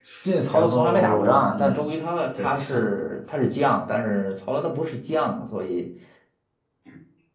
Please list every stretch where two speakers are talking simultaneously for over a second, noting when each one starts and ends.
0.5-1.8

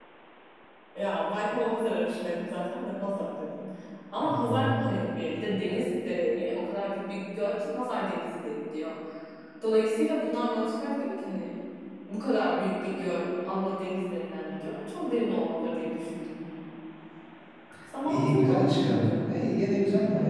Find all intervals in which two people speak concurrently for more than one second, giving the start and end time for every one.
18.0-19.3

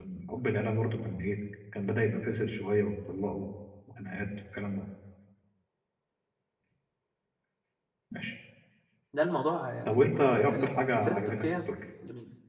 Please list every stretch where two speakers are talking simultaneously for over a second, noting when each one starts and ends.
9.8-11.5

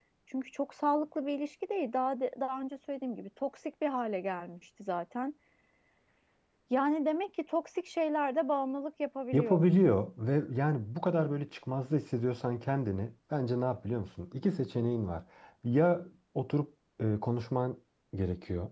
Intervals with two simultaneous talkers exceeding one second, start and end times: none

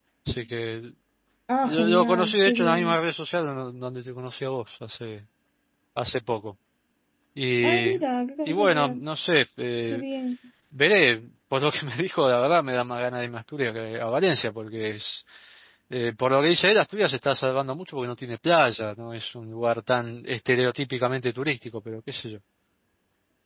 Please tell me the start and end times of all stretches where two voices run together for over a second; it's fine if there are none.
1.6-3.0

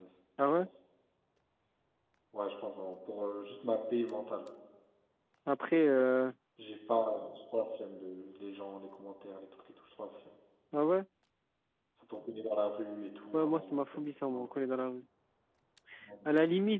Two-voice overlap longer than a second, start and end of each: 13.3-14.6

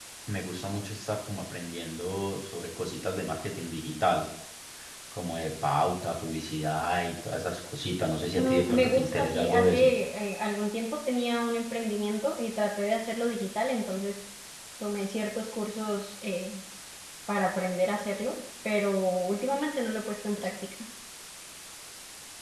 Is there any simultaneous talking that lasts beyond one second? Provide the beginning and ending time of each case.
8.3-9.9

